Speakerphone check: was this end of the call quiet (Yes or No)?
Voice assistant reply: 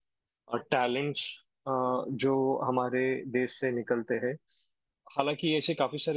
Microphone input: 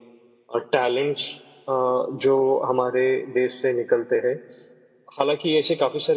Yes